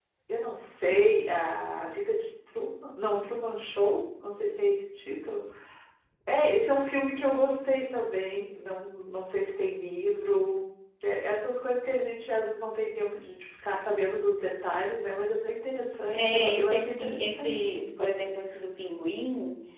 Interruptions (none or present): present